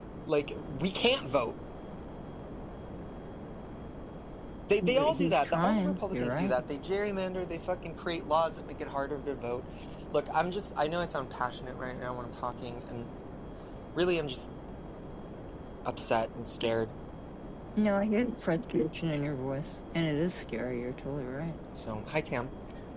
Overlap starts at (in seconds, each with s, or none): 4.8 s